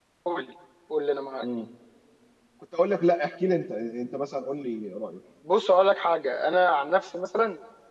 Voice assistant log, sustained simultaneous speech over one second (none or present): none